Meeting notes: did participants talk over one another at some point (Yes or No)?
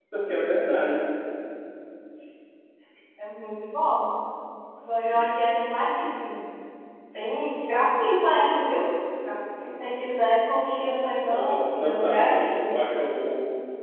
Yes